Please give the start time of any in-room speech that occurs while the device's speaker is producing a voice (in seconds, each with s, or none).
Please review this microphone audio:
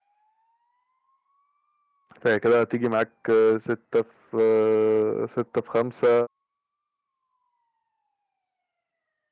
2.2 s